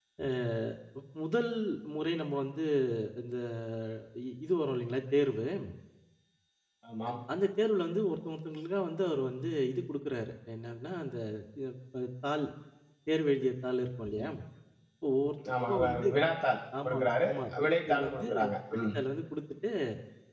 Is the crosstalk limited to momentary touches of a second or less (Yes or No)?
No